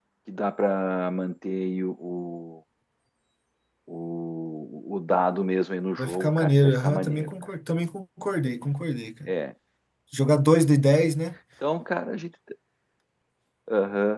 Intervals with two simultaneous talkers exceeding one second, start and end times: 6.0-7.3

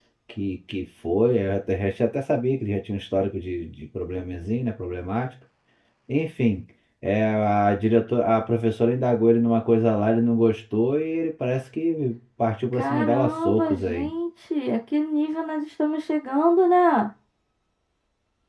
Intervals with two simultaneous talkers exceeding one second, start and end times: 12.7-14.1

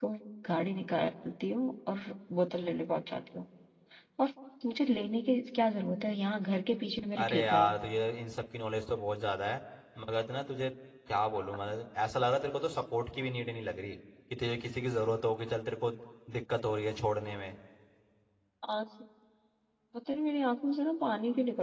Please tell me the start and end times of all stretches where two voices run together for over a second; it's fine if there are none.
none

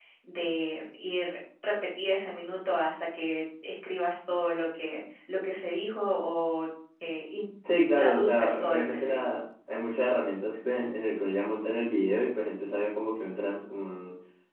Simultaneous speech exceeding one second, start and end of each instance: 8.0-9.2

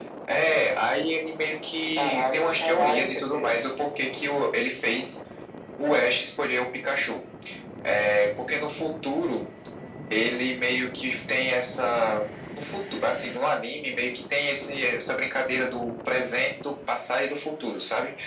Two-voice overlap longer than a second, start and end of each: 2.0-3.5

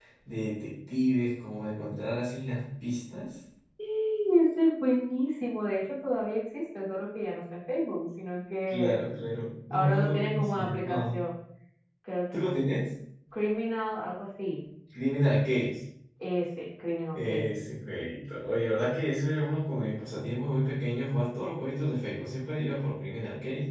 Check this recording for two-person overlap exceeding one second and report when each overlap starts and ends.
9.7-11.0

